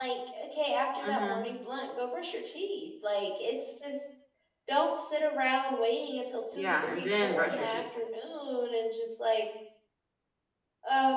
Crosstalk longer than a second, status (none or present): present